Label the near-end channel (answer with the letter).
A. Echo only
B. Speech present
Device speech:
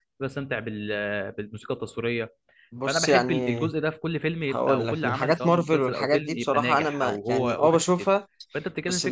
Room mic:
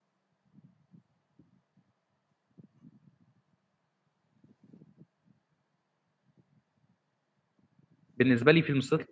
B